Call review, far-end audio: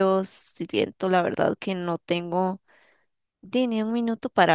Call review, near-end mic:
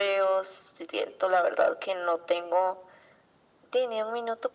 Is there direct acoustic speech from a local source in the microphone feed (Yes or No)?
No